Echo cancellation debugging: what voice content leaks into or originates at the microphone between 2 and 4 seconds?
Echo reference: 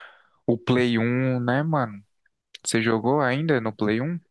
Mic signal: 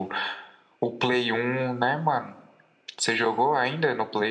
echo only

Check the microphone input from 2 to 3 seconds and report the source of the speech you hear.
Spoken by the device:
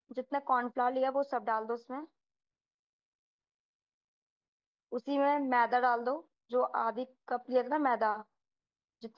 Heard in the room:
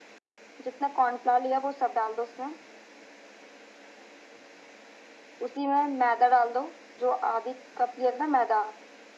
echo only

